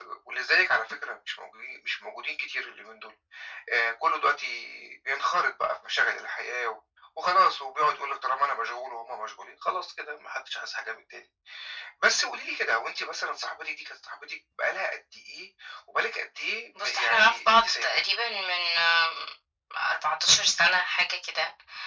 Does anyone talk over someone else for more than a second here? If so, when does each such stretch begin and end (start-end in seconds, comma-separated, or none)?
16.8-18.0